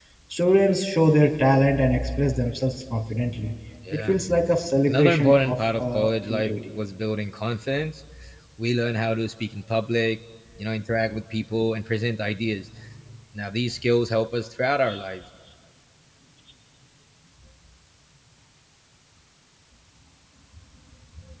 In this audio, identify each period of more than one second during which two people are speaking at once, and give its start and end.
4.9-6.5

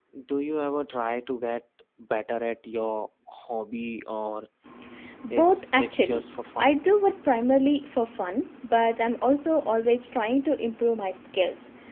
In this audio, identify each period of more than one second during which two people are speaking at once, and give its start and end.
5.3-6.8

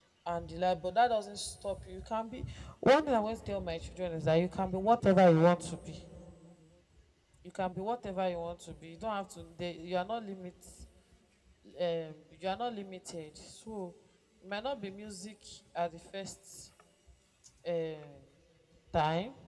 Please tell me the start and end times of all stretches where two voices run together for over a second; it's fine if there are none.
none

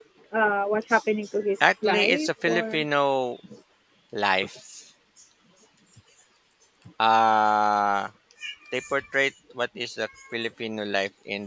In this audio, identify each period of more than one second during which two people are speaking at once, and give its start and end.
1.6-2.9

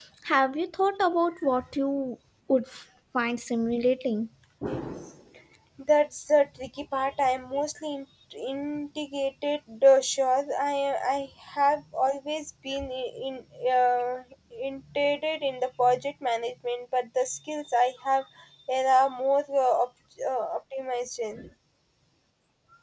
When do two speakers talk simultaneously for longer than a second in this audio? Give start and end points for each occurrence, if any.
none

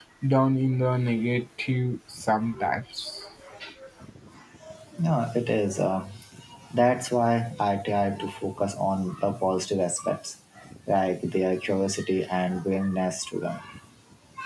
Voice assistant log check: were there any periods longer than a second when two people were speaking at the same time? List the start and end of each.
none

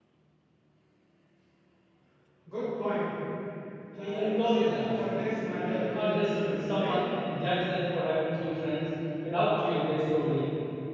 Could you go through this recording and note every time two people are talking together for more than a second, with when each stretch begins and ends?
4.0-7.0

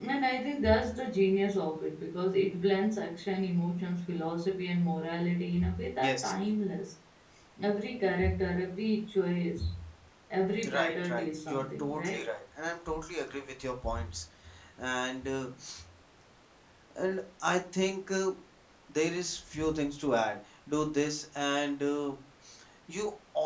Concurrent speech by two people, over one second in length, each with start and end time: 10.7-12.2

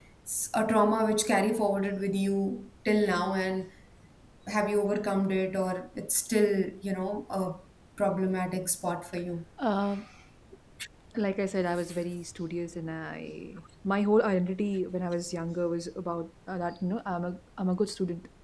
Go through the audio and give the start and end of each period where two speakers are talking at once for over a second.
none

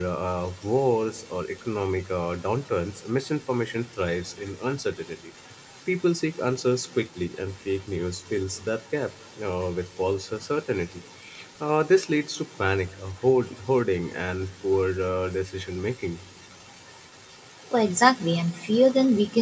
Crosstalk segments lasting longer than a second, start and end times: none

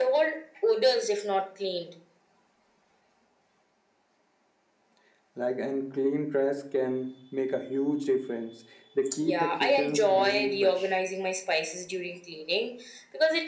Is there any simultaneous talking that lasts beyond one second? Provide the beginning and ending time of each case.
9.2-10.9

